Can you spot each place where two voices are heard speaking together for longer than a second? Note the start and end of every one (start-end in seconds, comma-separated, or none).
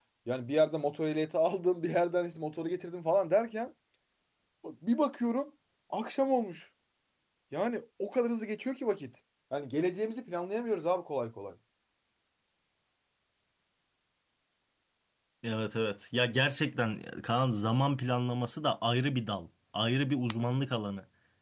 none